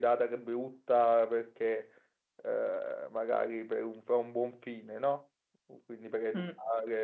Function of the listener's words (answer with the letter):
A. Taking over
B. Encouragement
B